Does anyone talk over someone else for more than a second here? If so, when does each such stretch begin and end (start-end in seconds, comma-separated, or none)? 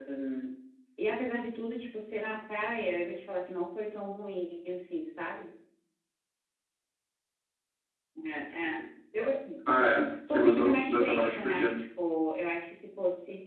10.3-11.6